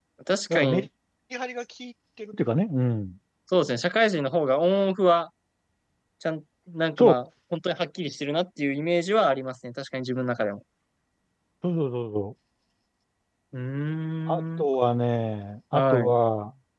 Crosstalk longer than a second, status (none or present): none